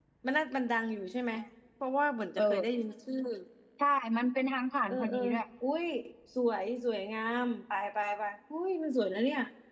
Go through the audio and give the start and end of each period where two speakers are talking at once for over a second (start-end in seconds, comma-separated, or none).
none